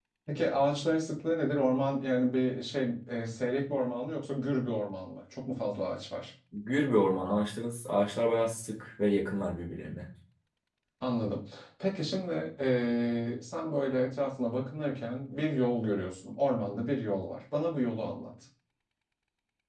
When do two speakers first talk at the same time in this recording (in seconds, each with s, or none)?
none